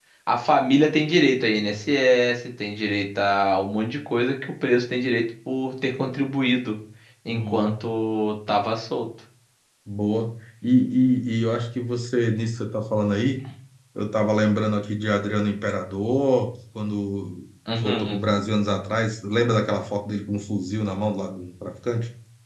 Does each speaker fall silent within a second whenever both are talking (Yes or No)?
Yes